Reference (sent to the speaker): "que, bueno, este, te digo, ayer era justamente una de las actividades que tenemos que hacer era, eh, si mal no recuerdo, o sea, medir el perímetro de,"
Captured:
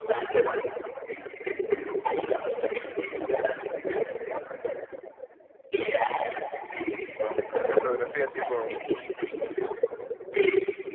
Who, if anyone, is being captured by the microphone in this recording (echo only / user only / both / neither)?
both